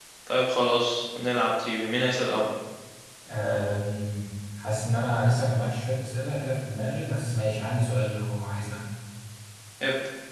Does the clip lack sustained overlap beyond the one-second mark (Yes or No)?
Yes